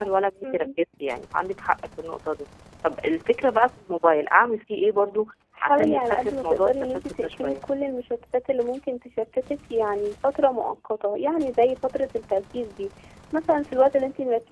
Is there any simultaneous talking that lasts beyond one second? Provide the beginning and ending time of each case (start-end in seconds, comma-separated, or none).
5.6-7.6